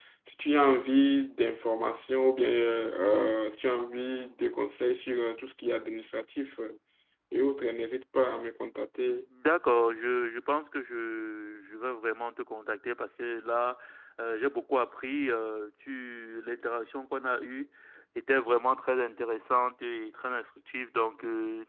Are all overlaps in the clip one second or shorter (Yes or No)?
Yes